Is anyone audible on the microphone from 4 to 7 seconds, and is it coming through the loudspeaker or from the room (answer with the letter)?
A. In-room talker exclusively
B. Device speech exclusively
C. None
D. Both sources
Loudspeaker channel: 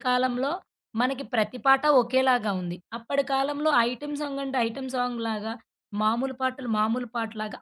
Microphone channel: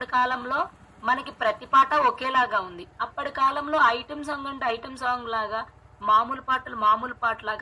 B